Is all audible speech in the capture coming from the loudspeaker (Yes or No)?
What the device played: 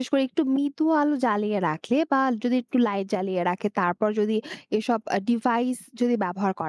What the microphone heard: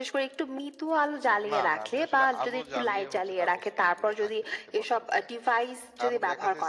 No